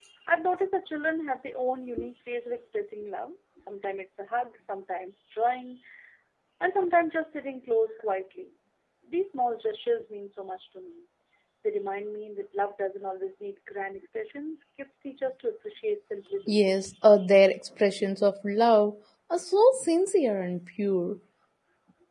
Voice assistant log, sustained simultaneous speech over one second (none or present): none